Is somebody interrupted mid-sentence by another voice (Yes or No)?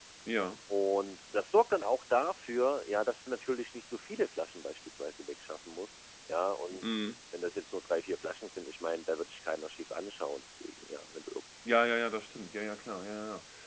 No